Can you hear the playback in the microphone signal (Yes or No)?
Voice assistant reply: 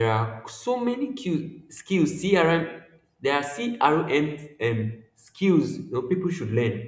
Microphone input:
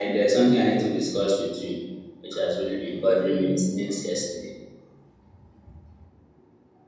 No